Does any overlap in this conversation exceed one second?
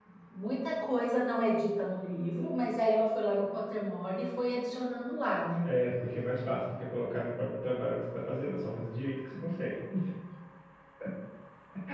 No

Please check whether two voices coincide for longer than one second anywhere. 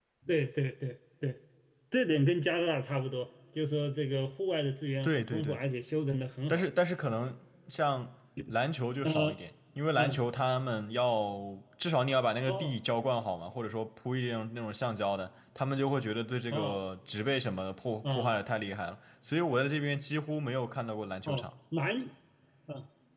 No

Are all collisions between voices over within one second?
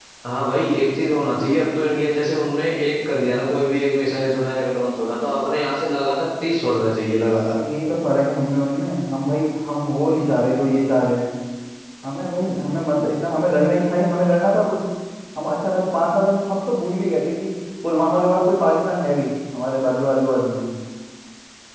Yes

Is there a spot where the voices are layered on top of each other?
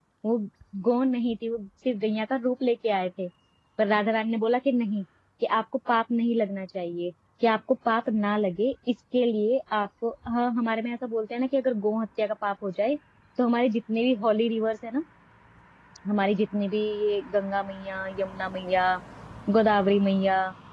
No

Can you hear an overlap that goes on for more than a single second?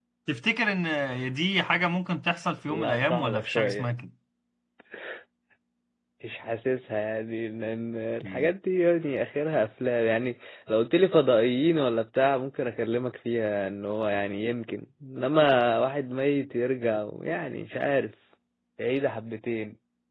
Yes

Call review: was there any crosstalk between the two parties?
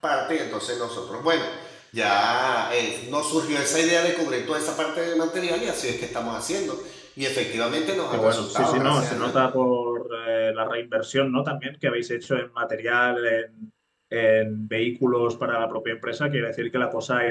Yes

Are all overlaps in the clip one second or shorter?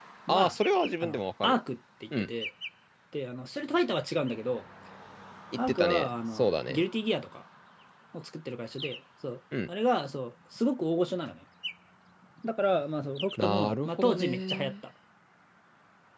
No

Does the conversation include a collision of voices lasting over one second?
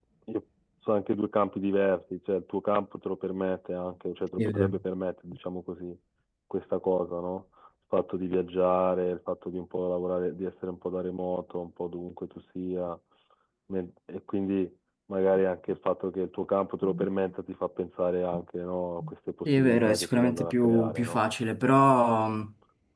Yes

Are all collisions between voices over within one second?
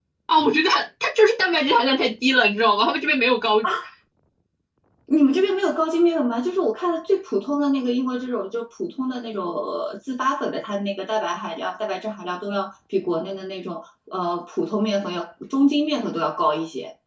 Yes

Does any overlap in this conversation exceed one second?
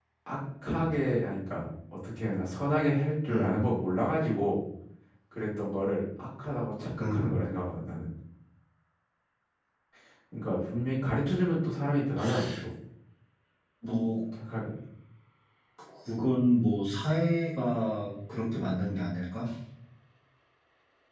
No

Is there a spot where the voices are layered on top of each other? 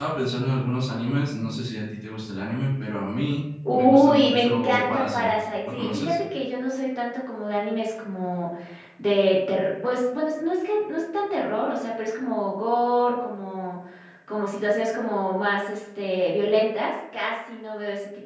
Yes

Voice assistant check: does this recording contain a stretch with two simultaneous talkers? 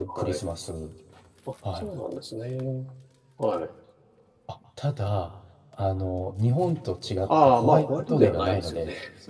Yes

